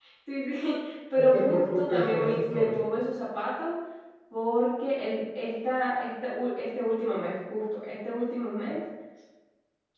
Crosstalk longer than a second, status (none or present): present